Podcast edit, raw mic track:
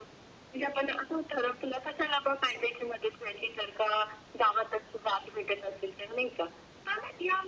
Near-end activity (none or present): none